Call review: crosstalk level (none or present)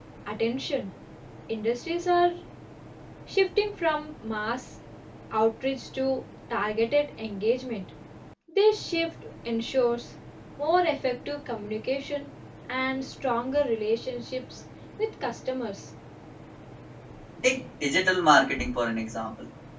none